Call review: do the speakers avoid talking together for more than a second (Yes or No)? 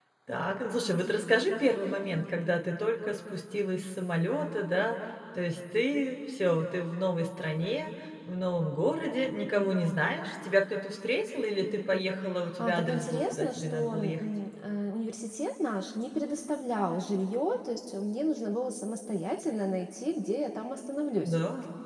No